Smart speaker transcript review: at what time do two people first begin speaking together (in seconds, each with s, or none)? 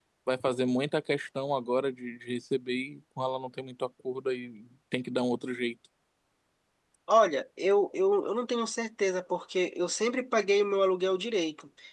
none